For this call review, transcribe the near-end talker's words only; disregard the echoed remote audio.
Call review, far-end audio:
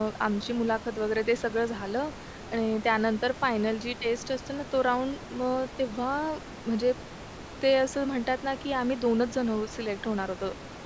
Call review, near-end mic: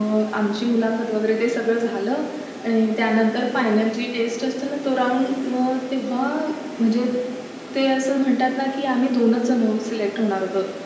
none

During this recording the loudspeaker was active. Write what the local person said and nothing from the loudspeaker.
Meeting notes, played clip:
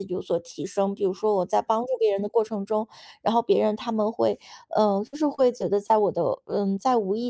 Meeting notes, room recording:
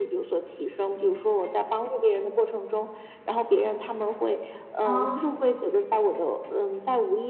哦。

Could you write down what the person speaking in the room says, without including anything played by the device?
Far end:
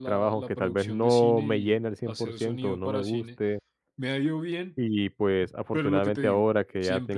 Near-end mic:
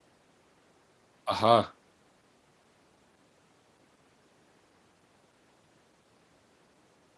Ajá.

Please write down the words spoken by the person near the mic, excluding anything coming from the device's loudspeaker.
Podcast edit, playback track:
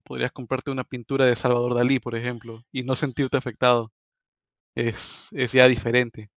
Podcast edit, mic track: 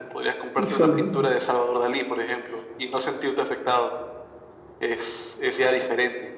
híjole, no.

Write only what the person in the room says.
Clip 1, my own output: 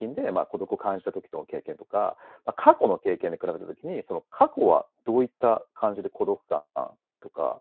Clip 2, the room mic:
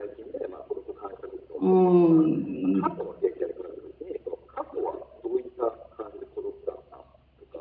うーん、比

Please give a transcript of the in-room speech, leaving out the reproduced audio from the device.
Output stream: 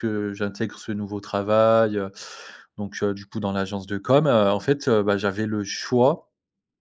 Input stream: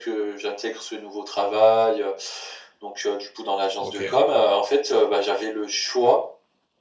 OK.

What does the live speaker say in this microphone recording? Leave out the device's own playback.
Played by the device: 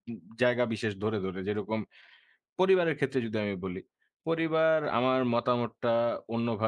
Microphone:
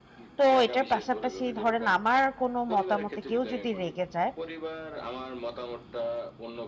তো এটার পাশাপাশি ধরেন আমার কোনো মতামতে কেউ যদি রেগে যায়

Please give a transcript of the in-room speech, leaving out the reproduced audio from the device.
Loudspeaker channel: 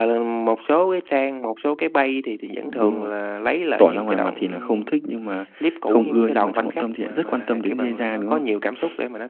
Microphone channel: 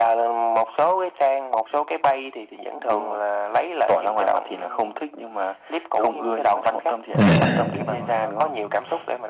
à.

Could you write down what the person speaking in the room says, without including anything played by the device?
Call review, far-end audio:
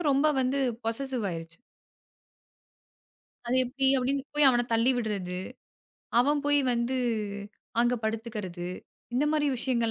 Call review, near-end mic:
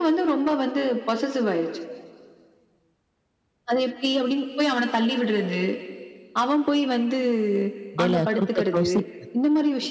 இடையில குறுக்க கௌசிக்

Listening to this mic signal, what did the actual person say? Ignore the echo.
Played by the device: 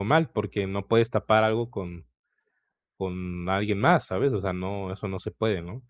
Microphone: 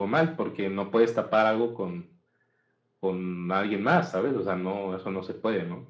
none

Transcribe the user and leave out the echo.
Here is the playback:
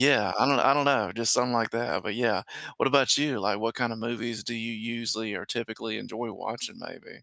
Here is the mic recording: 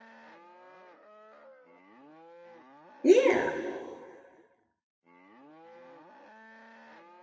Yeah,

